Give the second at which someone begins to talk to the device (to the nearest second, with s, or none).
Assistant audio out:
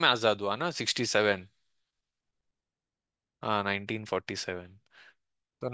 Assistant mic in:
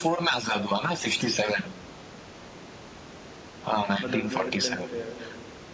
4 s